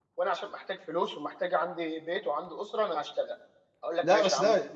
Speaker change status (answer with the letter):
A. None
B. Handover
B